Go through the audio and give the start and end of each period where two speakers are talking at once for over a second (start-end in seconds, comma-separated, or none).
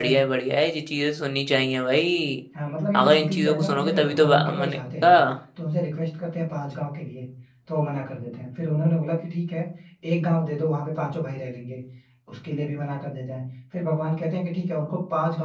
2.9-5.1